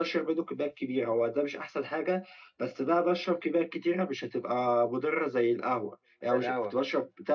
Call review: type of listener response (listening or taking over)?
listening